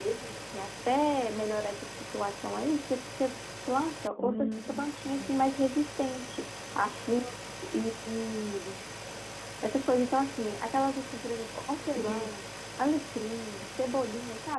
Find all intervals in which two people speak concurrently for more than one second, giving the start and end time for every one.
4.2-5.5

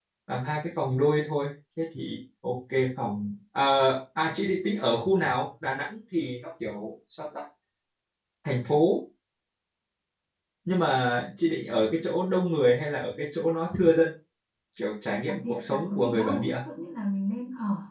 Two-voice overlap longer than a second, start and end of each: 15.3-16.5

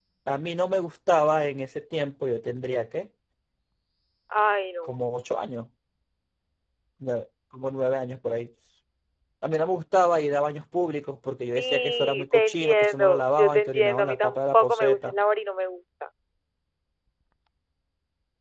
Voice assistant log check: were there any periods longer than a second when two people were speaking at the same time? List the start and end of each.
11.6-15.1

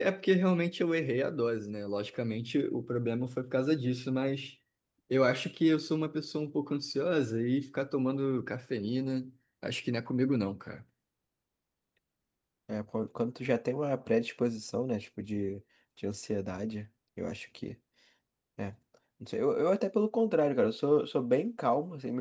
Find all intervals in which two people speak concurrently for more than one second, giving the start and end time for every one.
none

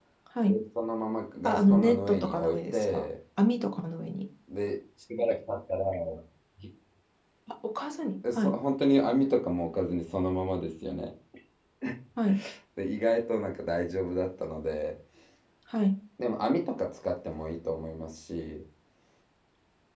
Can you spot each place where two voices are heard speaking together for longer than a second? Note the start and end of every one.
1.4-3.1

